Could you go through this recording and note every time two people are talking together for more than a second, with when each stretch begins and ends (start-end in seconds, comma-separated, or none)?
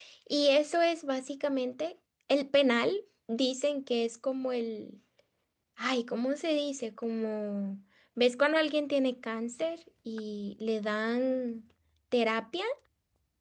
none